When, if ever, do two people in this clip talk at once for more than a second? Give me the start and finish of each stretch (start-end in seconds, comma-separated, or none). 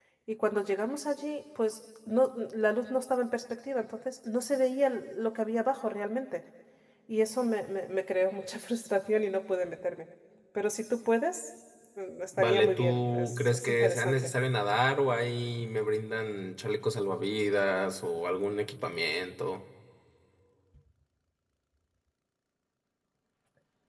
12.4-14.3